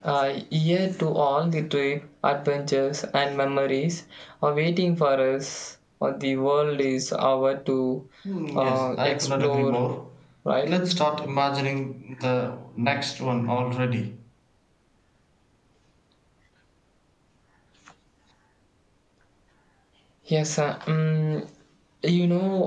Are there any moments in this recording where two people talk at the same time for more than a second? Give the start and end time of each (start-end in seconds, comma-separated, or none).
8.6-9.8